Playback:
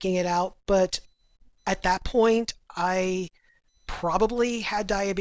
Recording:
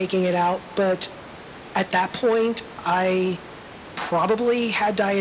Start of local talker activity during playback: none

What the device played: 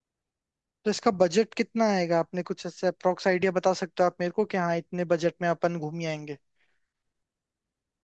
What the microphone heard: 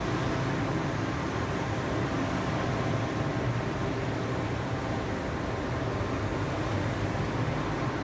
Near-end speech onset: none

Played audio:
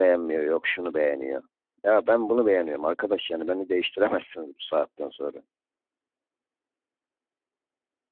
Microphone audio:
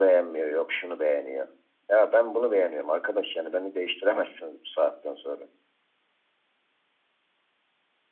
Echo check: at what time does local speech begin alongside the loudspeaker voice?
none

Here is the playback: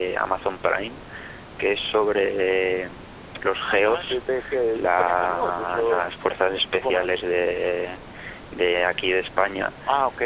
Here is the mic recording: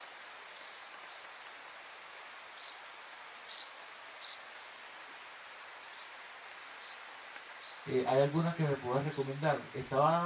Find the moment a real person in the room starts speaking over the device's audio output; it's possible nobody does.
8 s

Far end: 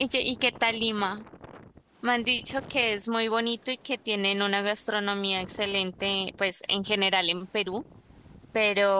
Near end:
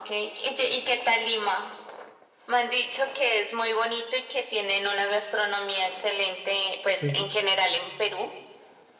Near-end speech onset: 7 s

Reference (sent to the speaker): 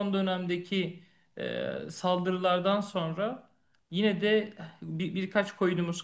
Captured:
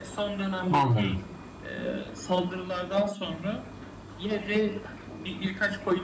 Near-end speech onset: 1 s

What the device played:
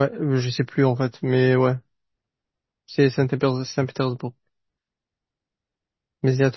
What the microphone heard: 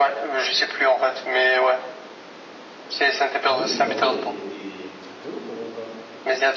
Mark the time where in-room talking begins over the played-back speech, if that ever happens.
3 s

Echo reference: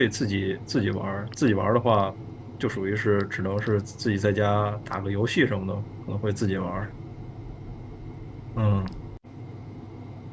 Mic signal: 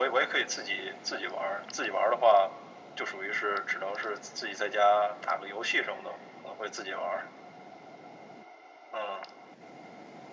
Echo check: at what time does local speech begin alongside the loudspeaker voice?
none

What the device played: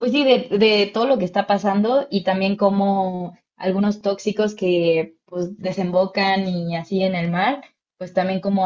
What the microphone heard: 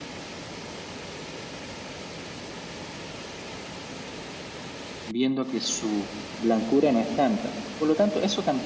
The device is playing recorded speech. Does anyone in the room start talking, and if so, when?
5 s

